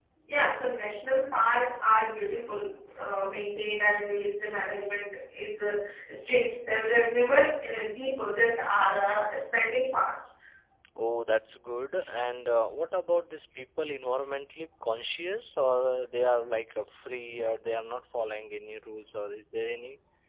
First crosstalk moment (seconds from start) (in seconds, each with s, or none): none